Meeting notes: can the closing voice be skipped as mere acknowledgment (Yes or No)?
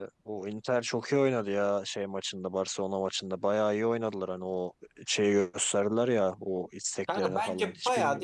No